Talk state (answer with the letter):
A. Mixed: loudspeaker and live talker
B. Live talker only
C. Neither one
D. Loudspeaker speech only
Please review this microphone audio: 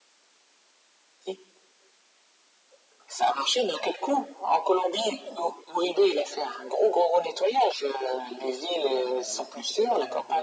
A